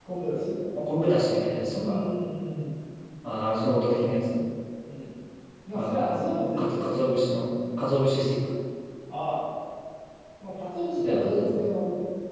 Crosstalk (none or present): present